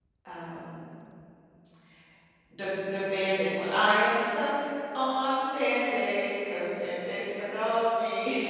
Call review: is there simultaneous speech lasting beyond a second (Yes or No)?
No